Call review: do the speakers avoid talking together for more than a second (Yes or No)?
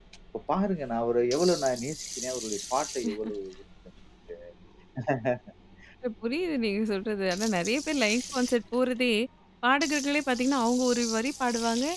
Yes